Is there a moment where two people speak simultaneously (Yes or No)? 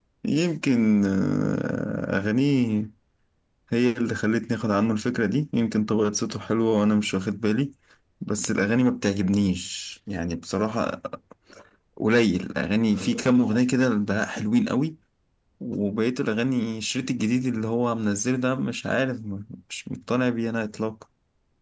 No